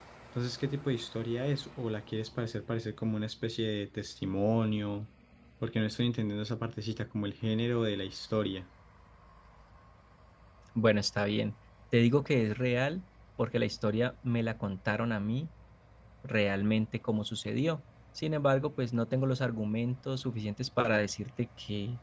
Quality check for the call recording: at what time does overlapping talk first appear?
none

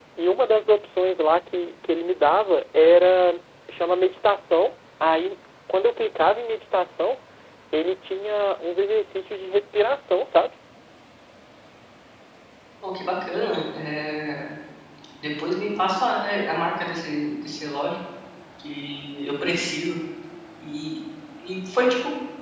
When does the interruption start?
none

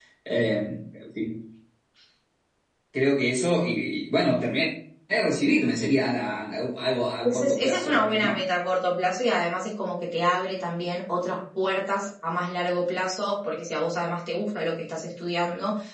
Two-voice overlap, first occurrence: 7.2 s

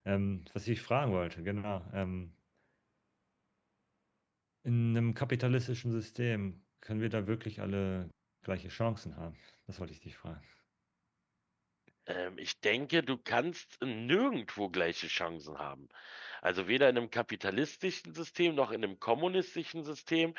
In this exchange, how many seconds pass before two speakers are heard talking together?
none

